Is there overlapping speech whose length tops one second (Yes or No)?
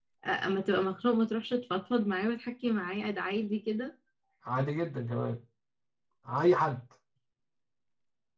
No